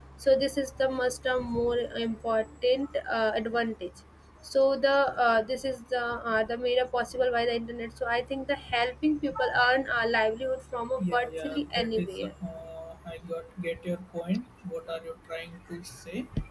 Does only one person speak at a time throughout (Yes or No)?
No